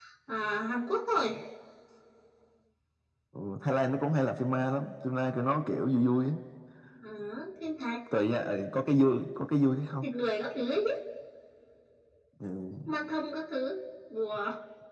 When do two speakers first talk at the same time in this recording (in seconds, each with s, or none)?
none